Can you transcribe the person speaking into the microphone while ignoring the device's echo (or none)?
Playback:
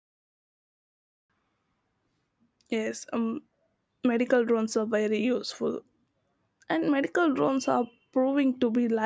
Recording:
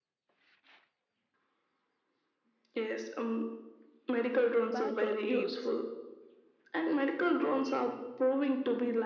patrol teams.